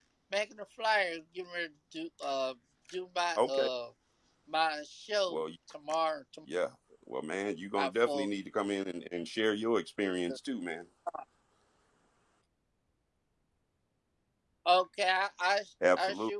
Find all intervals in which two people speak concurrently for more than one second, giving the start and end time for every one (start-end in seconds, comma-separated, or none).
none